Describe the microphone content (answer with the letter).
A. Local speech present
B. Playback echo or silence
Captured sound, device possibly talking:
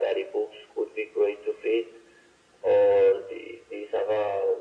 B